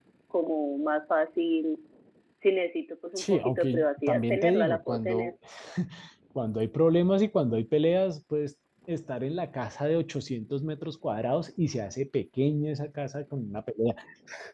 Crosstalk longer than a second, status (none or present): present